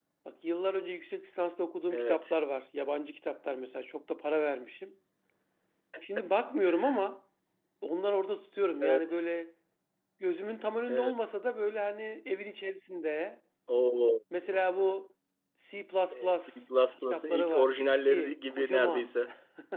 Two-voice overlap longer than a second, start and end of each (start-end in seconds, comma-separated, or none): 17.0-19.1